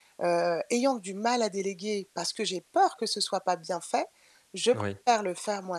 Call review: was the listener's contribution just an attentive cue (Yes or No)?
Yes